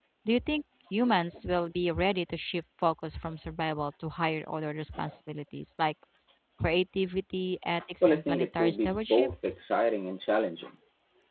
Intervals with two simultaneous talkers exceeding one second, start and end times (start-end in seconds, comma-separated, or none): 8.0-9.3